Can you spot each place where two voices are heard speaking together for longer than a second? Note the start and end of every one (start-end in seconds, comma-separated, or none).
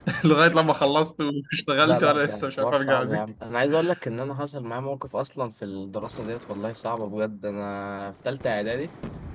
1.8-3.2